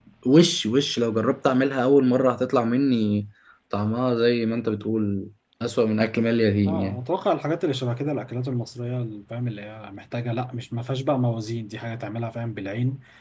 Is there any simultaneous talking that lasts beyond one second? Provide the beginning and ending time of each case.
none

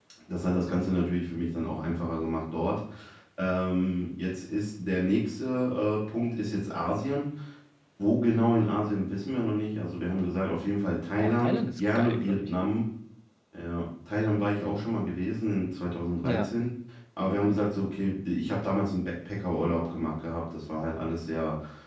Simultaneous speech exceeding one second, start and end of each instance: 11.2-12.5

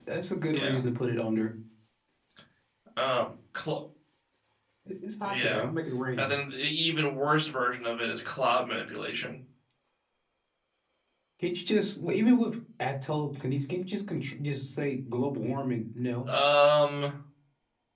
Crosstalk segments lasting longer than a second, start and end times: none

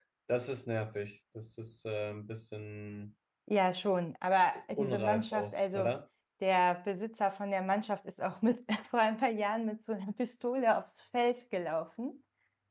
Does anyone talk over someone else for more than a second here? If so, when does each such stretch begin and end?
4.7-6.0

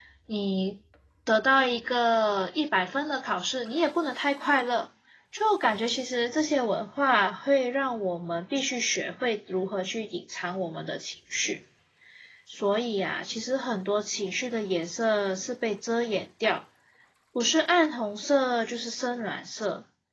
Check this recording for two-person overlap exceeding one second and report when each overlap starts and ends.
none

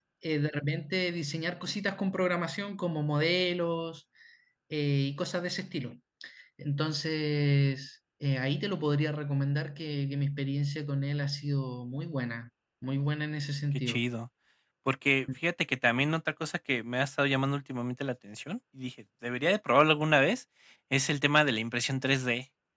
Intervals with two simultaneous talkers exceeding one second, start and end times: none

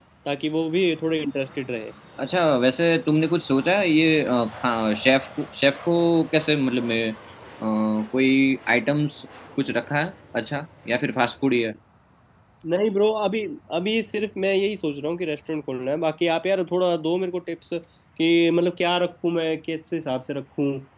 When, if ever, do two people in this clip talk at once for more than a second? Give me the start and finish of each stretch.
none

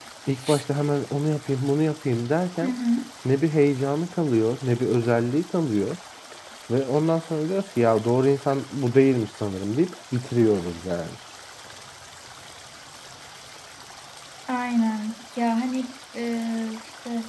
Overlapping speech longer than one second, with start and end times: none

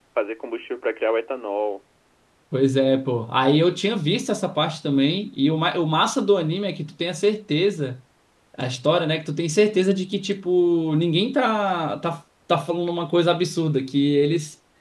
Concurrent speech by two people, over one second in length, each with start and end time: none

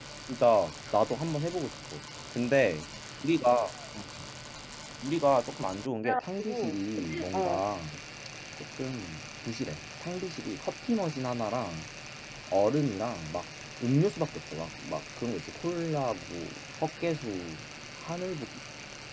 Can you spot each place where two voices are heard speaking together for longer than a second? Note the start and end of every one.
6.0-7.6

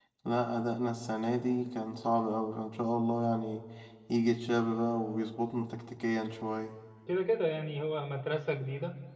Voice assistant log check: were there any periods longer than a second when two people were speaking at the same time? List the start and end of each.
none

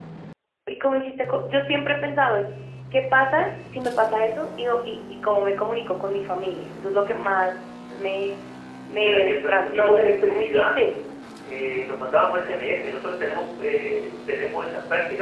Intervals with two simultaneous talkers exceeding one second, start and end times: 9.0-10.8

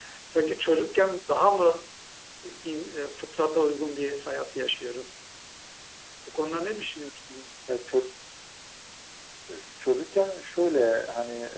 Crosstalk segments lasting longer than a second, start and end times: none

